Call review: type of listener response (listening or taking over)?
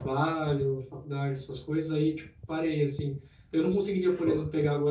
listening